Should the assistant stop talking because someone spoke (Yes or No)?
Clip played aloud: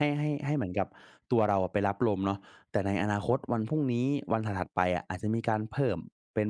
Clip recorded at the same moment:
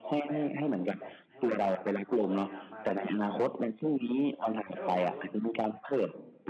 Yes